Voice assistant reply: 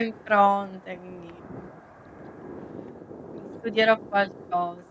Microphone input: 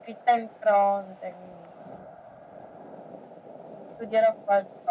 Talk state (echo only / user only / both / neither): echo only